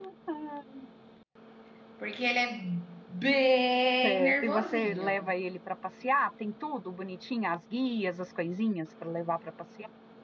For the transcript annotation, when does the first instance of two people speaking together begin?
4.0 s

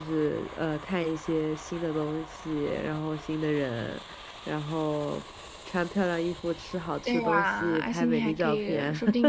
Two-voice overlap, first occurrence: 7.0 s

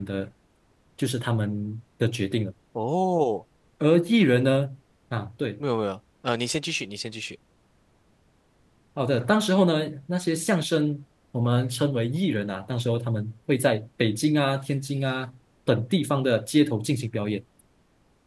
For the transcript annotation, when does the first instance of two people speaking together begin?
none

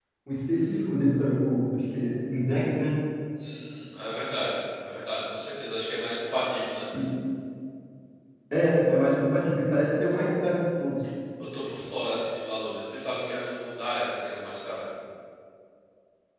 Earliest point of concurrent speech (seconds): none

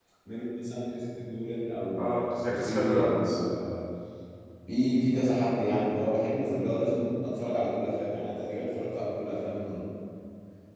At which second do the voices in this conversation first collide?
2.0 s

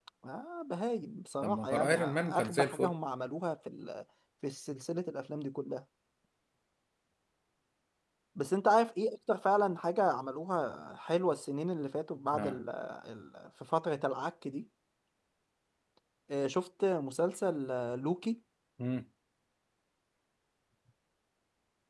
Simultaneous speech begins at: 1.4 s

